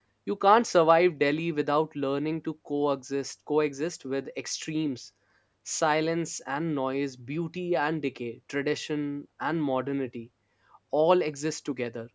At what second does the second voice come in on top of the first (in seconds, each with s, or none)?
none